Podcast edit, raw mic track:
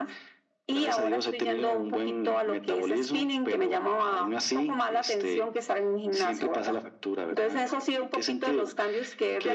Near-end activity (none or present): none